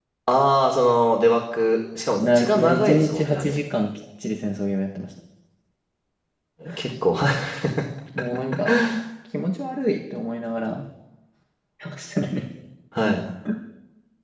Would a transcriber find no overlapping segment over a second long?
No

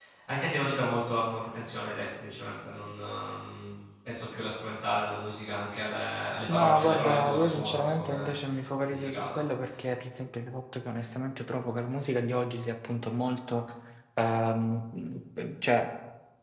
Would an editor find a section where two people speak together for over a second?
Yes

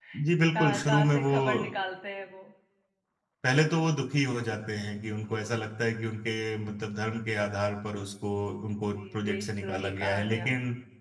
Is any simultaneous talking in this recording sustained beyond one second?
Yes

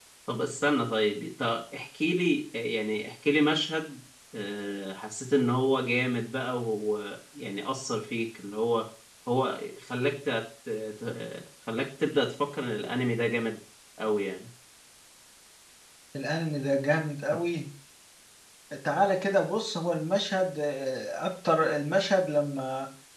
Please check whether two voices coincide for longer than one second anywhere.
No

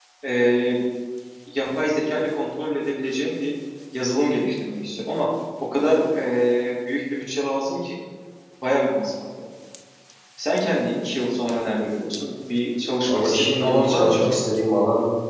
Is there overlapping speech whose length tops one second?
Yes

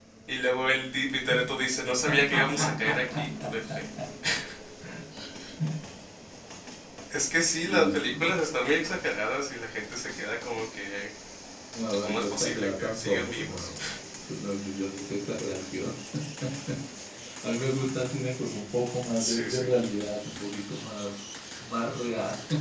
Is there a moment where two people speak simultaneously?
Yes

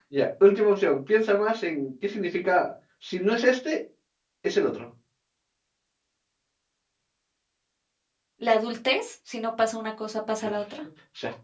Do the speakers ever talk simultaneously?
No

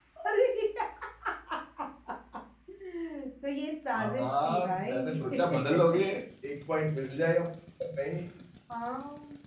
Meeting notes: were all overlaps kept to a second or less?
No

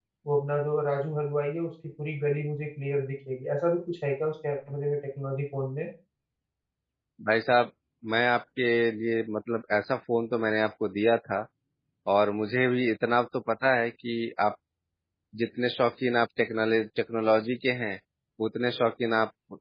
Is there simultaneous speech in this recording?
No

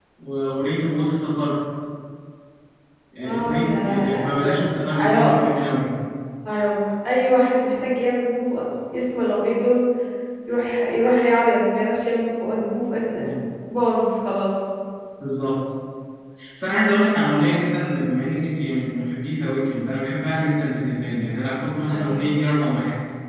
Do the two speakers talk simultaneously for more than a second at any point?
Yes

